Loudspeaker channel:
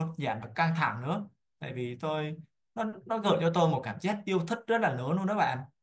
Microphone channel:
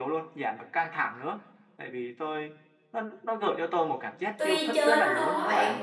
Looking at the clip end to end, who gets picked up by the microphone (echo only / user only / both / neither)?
both